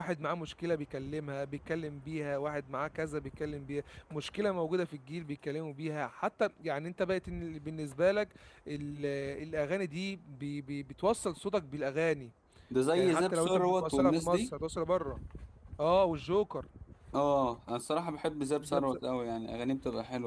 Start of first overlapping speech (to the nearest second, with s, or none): 13 s